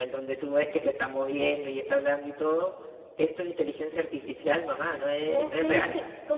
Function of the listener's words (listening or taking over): taking over